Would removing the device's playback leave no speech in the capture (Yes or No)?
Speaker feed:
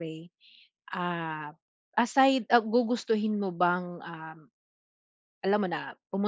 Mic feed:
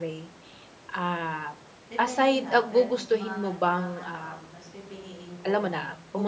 No